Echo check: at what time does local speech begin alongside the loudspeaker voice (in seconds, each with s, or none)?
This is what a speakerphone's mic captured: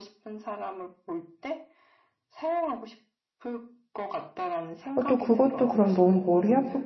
4.9 s